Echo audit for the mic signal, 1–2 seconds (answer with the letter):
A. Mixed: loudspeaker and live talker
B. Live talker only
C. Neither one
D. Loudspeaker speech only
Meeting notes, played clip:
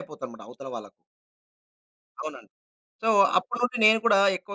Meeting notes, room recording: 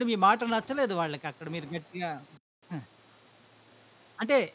B